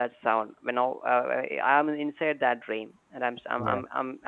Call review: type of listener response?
listening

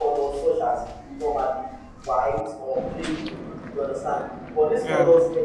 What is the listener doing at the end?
listening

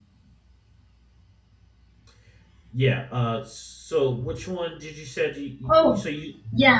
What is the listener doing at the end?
taking over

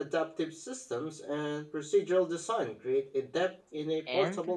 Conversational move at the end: taking over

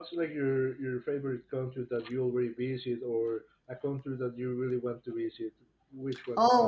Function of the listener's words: taking over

